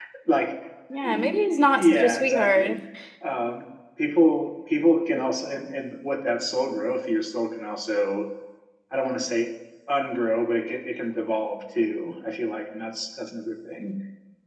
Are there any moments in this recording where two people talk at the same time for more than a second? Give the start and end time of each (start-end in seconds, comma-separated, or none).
1.0-2.8